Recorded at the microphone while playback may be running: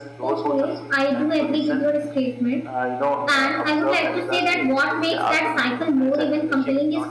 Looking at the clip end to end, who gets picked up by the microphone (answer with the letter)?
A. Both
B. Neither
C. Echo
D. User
A